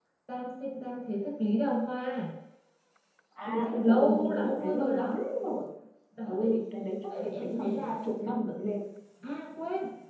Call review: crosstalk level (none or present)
present